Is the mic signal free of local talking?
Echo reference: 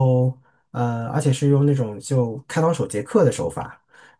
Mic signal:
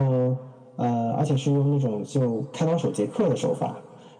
Yes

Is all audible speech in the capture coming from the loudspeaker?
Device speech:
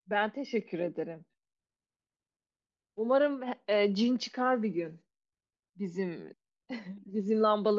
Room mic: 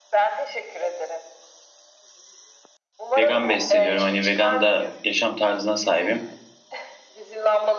No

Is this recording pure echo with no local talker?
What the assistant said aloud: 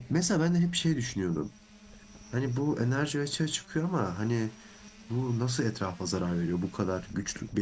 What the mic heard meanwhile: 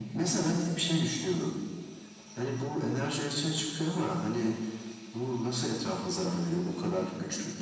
Yes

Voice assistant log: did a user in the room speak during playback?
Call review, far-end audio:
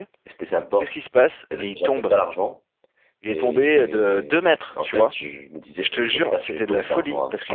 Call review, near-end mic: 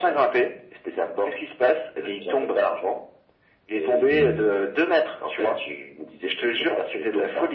Yes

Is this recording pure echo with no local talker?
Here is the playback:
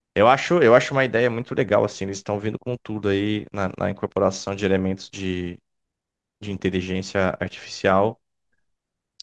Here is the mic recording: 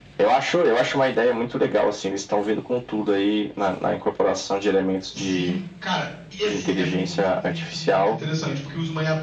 No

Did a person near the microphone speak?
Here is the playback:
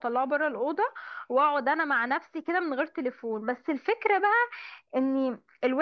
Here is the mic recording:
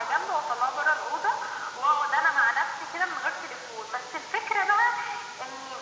No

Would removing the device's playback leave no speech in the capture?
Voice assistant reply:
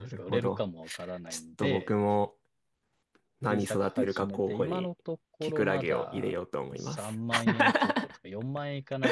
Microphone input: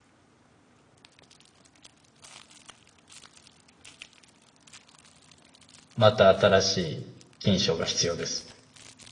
No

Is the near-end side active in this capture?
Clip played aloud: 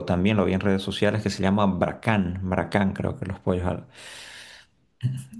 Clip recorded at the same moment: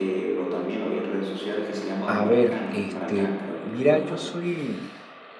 Yes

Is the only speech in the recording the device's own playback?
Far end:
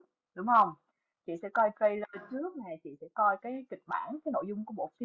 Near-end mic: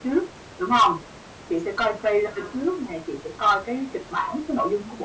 Yes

